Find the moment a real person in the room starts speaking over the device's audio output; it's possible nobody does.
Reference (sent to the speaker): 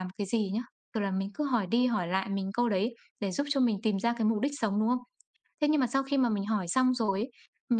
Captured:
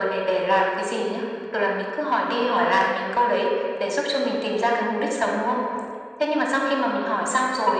none

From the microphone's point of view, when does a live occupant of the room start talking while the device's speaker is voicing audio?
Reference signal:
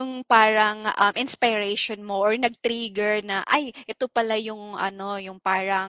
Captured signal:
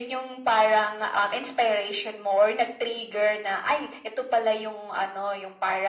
none

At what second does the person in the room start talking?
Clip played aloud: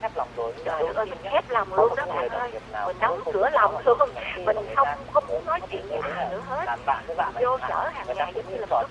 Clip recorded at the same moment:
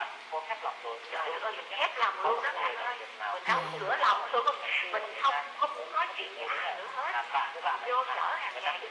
3 s

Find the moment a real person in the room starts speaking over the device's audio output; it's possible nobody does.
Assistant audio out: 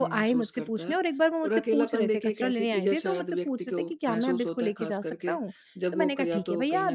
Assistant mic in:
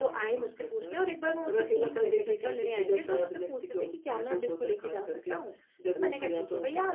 none

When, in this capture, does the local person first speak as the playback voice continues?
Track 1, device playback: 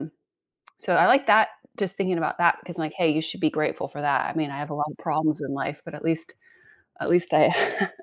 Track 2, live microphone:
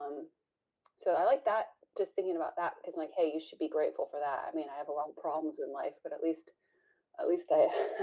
none

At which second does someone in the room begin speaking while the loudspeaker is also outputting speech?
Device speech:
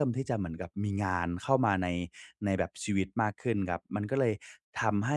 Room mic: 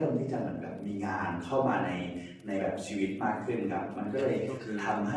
4 s

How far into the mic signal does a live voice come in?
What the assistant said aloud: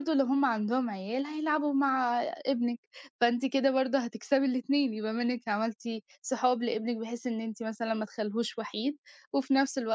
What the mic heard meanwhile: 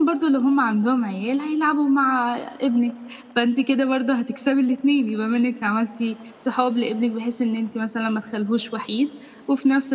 none

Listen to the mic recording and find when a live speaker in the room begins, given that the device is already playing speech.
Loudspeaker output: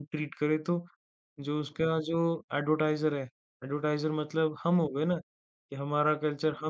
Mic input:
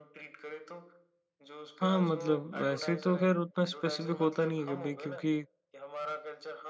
2 s

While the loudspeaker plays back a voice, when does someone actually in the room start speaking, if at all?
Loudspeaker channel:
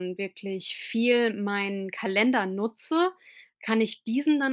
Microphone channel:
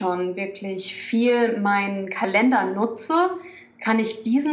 none

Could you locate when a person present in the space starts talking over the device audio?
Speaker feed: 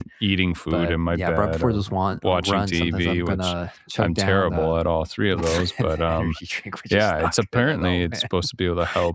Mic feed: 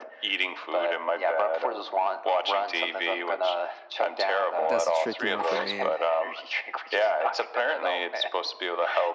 5 s

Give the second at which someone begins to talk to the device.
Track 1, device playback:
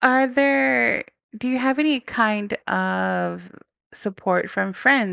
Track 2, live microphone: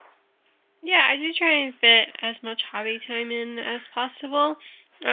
1 s

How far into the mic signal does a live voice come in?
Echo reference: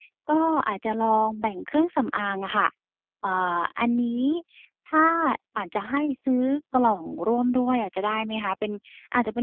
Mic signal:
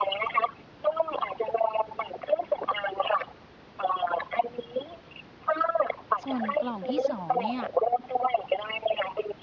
6 s

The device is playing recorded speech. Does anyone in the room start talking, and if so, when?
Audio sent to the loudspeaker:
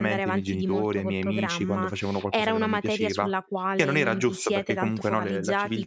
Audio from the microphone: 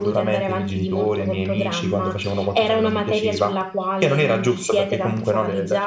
none

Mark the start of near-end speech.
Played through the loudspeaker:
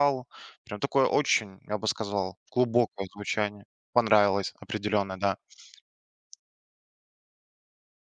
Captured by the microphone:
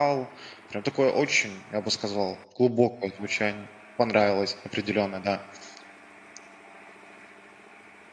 none

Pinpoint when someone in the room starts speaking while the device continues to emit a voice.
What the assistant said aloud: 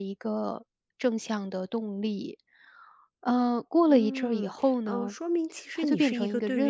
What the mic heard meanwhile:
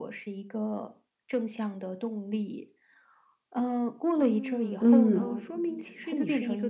5 s

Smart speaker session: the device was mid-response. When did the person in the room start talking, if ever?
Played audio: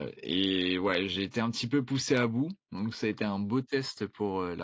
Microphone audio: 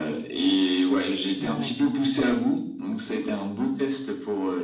1 s

